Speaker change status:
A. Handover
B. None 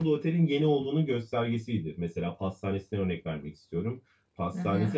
B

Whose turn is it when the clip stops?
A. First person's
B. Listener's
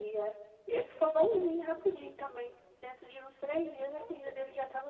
A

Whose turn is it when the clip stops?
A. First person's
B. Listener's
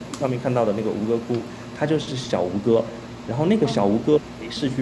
A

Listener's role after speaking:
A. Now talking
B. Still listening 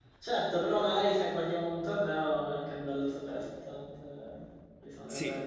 A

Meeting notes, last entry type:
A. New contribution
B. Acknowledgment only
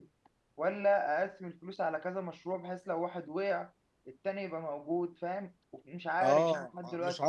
A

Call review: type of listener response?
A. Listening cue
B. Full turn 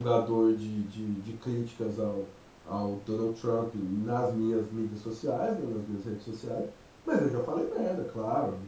A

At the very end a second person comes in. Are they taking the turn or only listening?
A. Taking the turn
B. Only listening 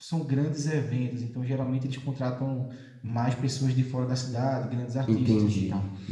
A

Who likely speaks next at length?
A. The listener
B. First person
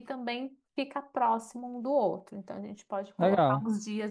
B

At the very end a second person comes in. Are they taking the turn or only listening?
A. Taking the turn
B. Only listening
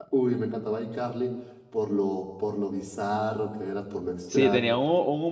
A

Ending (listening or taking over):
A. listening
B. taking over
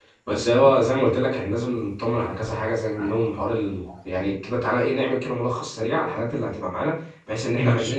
A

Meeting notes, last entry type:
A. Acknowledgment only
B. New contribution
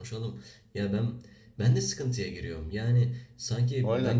A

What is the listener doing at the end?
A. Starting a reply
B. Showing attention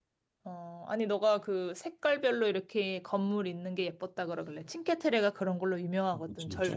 B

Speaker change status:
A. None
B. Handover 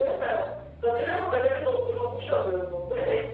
B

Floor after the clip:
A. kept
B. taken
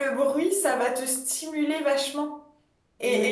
A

